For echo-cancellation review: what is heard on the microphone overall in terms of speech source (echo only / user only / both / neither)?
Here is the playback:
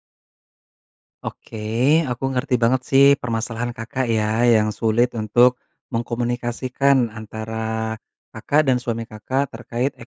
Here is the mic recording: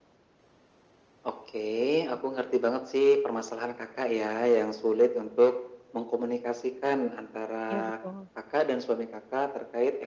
both